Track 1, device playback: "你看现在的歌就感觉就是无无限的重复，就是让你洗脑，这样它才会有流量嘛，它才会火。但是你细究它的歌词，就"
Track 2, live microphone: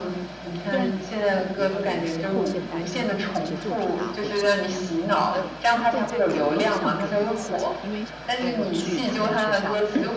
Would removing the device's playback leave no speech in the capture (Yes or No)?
No